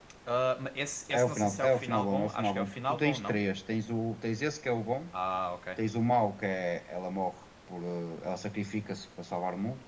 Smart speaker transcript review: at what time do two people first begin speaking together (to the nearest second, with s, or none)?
1 s